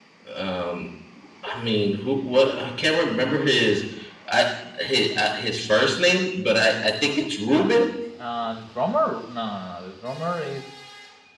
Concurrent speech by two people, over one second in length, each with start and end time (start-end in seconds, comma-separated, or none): none